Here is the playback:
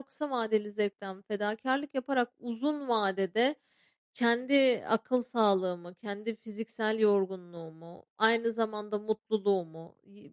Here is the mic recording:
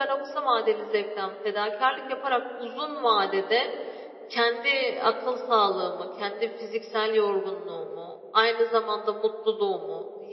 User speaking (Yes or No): No